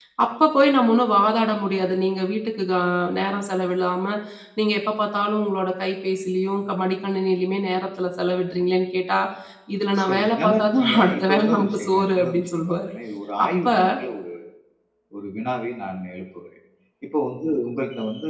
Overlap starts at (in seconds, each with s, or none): 10.1 s